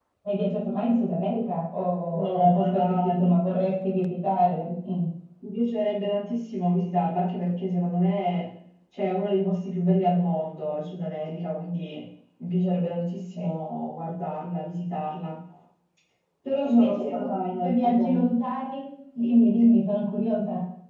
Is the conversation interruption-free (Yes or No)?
No